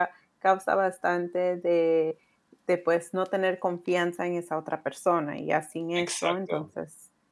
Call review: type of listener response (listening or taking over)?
listening